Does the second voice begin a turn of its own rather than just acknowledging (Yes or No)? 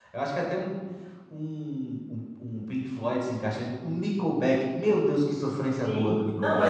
Yes